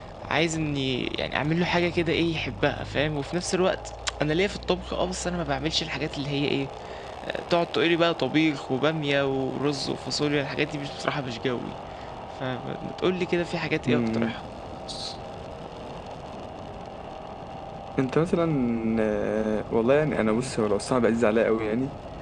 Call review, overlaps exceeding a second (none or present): none